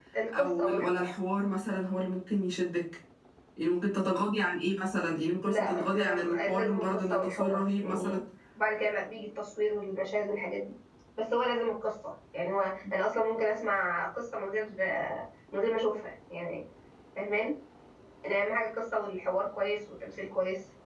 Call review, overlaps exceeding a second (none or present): present